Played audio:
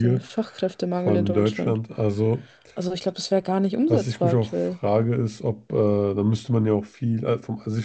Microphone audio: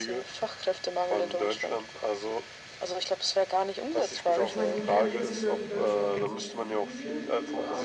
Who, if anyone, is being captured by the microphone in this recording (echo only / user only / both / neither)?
both